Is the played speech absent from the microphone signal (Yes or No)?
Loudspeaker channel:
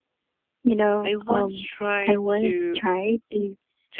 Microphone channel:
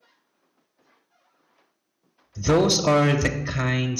Yes